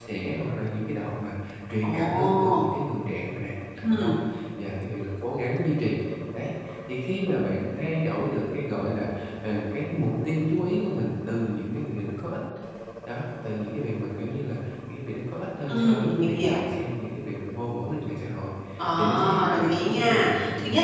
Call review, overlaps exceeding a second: present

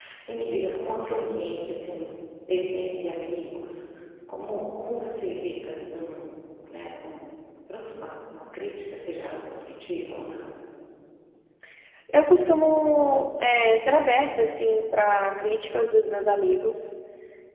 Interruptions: none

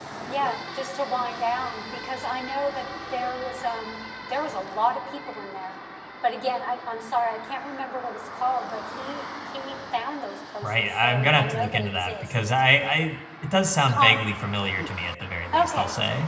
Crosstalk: present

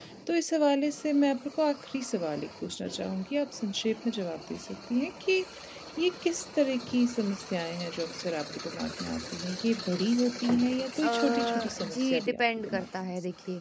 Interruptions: present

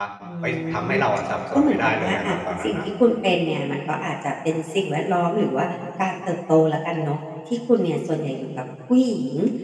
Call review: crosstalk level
present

